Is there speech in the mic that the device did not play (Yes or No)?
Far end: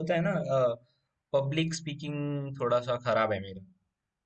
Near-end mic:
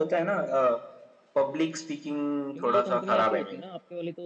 Yes